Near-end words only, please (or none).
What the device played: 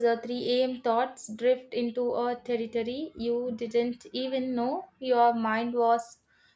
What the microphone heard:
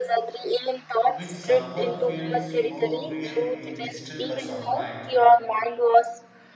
which someone feels more real in the stillness of night.